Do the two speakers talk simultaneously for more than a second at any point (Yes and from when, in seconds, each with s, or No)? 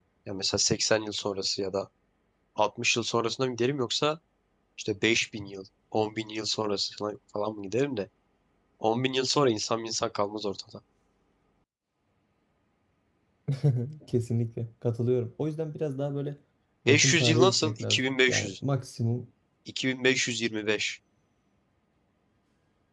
Yes, from 16.9 s